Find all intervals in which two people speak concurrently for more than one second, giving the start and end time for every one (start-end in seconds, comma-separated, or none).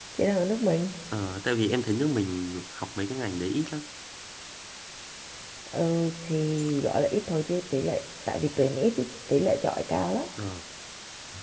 none